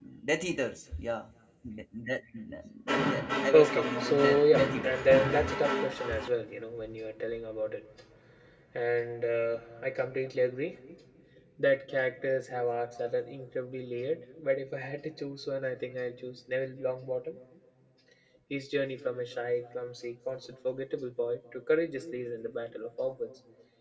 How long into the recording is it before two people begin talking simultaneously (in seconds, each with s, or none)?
3.5 s